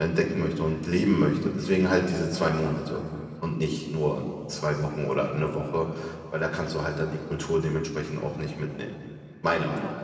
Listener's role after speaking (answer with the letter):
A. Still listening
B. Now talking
B